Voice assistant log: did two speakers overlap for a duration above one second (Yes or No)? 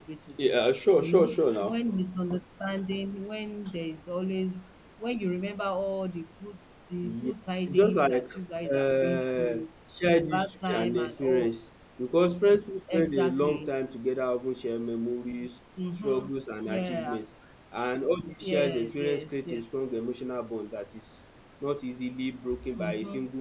Yes